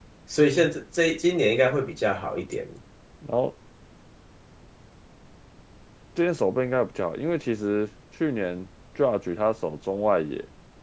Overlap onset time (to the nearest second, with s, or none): none